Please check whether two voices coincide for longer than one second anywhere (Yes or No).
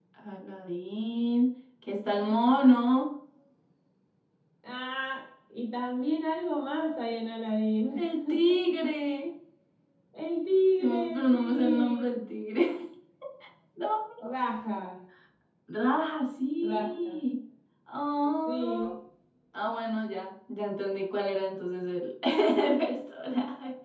Yes